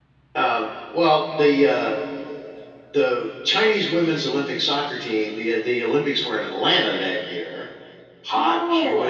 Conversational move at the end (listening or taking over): taking over